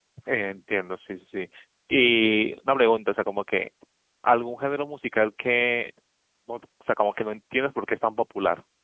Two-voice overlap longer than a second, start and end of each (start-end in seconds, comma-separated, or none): none